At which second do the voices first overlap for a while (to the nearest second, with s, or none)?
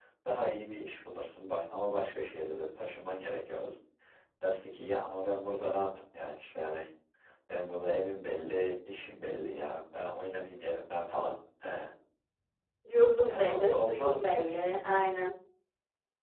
13 s